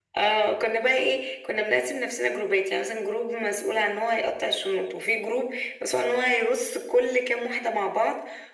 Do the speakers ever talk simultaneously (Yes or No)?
No